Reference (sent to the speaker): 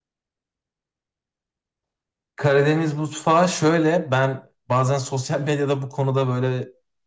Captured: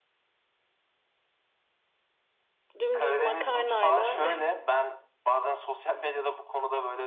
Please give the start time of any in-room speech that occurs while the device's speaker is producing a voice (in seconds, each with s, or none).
2.8 s